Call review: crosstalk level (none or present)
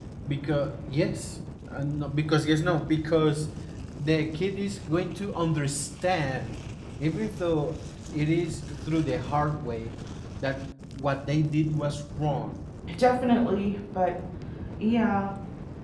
none